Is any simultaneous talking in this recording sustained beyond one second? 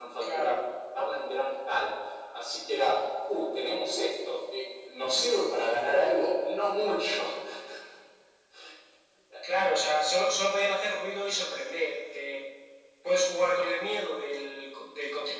No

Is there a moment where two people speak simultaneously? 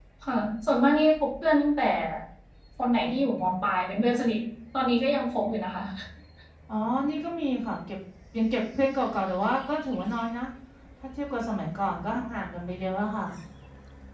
No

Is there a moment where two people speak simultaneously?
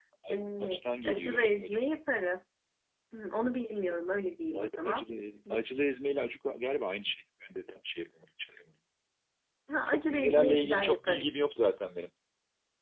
Yes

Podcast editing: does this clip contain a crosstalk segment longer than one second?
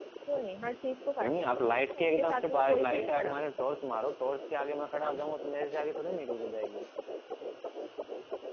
Yes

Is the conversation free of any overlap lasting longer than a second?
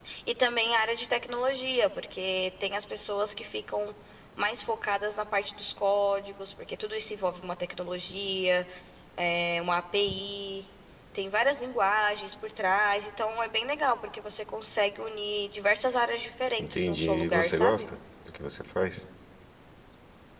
No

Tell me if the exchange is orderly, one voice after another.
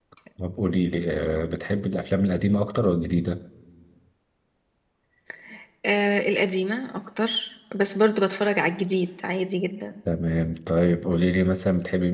Yes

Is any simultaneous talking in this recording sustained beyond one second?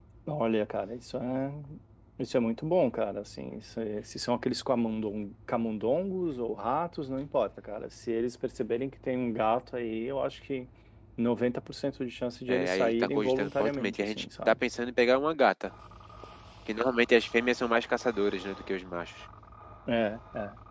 Yes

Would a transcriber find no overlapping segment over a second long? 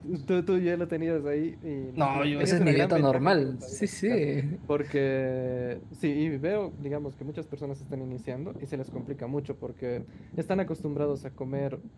No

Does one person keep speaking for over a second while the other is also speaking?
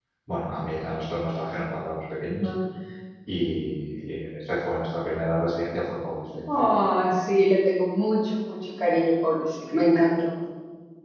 No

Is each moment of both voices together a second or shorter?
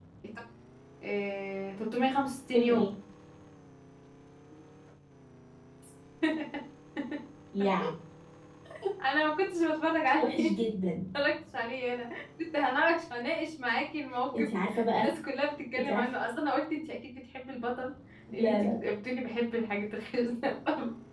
Yes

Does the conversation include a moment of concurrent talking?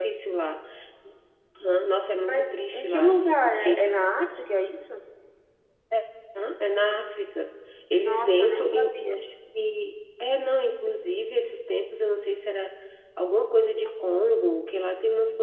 Yes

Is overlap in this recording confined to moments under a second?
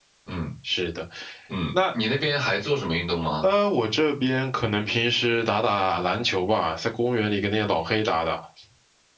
Yes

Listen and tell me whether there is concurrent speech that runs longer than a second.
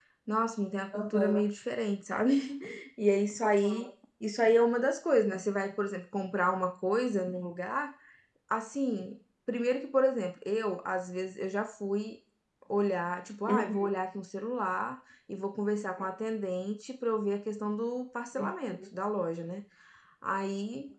No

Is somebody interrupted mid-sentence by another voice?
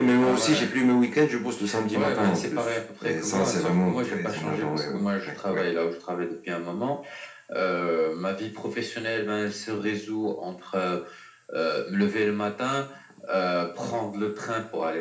Yes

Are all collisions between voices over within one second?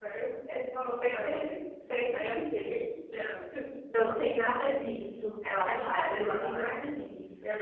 No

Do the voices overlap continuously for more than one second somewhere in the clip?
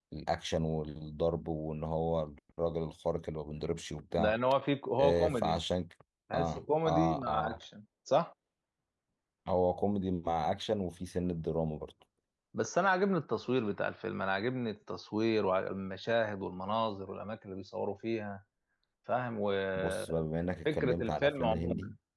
Yes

